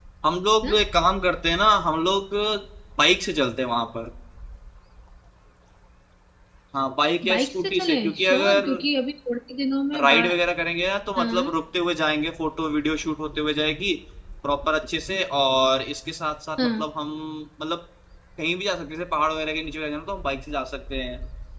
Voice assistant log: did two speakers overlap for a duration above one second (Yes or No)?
Yes